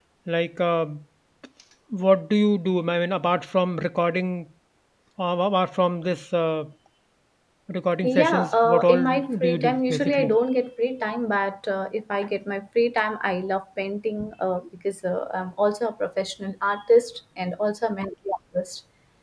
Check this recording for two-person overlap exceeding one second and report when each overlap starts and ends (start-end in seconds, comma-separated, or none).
8.2-10.4